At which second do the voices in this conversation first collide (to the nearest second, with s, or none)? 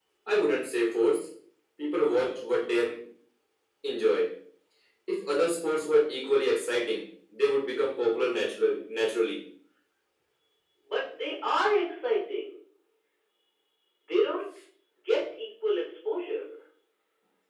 none